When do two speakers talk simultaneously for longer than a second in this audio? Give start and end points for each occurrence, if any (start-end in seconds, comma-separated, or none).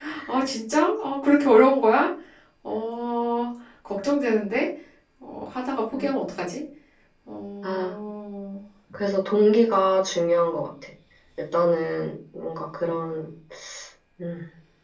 none